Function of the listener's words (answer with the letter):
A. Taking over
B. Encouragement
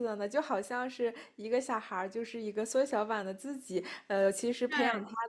B